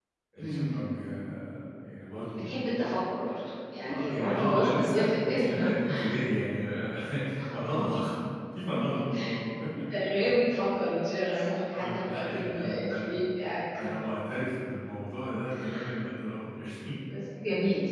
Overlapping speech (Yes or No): Yes